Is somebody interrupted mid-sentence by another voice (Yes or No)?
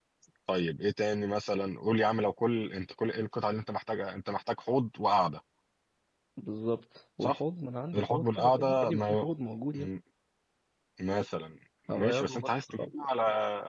Yes